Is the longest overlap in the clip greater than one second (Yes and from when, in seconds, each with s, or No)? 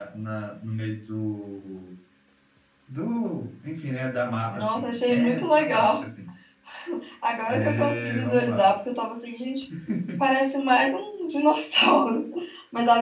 Yes, from 4.5 s